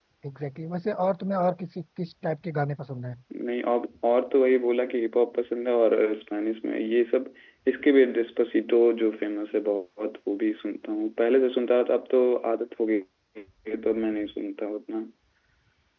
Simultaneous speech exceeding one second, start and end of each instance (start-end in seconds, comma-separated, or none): none